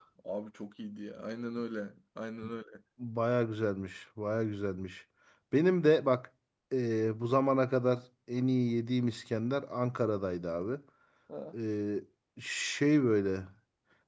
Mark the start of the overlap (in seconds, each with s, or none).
none